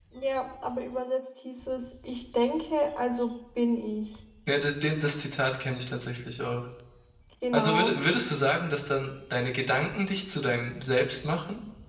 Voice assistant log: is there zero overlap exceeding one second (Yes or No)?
Yes